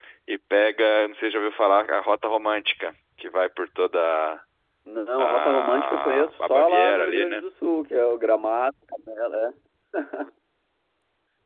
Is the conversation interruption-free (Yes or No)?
No